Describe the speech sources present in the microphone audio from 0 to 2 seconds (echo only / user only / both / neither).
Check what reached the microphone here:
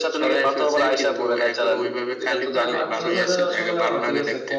echo only